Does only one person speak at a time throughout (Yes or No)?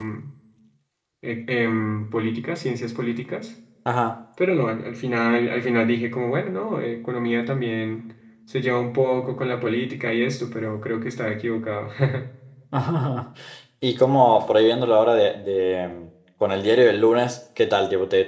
Yes